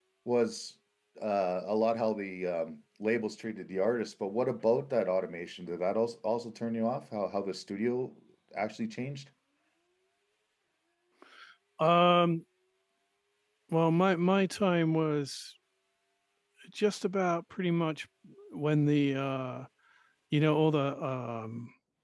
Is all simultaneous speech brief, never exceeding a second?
Yes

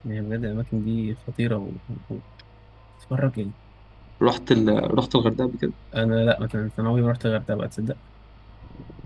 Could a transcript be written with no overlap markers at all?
Yes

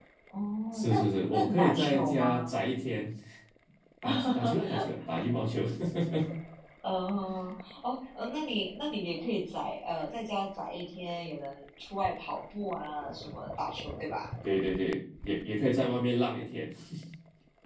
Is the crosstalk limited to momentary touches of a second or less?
No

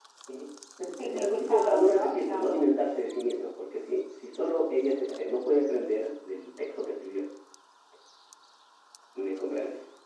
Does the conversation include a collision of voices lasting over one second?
Yes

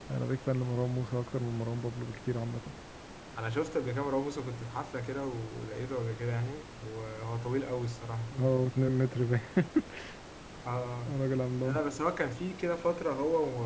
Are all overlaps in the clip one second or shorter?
Yes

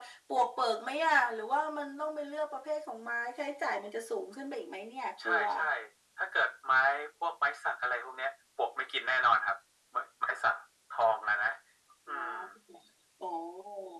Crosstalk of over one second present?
No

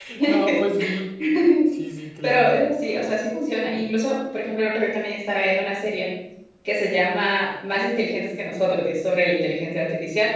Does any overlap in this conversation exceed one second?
No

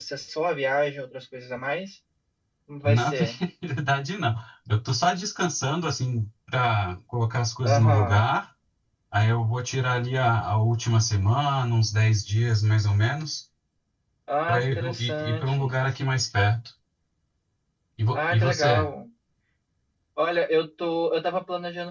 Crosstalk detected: Yes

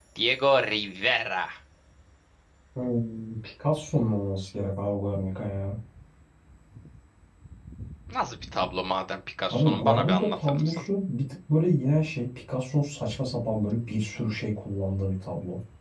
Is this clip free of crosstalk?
No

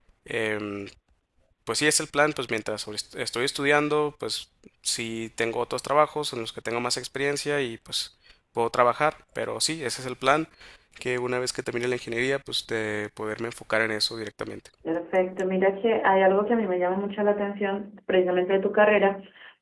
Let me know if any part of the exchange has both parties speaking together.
No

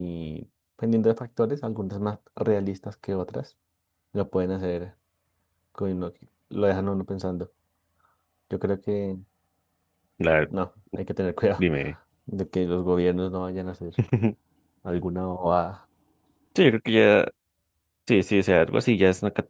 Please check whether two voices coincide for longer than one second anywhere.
No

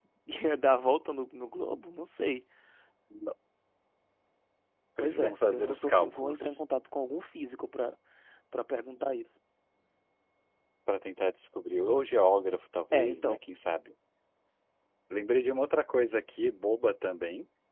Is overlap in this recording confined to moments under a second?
No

